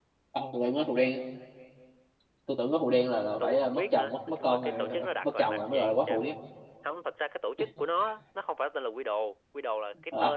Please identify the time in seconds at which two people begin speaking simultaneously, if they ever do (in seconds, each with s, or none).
3.4 s